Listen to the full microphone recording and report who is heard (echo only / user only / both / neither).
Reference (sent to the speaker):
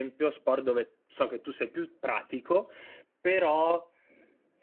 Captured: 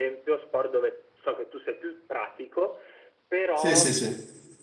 both